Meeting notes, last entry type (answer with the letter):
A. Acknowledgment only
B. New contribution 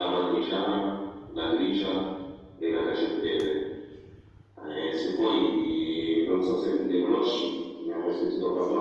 B